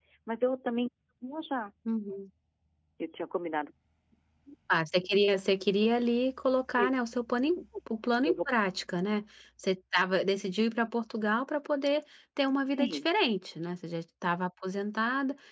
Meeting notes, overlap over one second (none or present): none